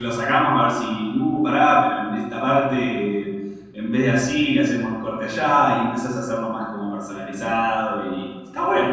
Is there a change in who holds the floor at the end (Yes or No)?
Yes